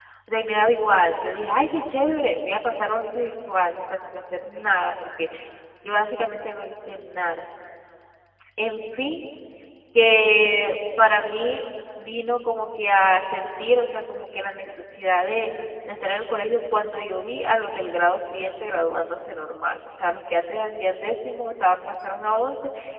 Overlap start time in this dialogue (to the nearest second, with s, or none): none